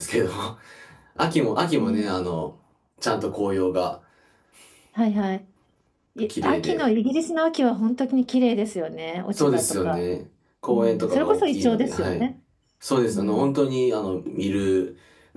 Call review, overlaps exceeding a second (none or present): present